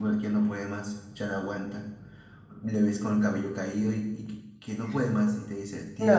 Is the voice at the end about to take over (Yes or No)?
Yes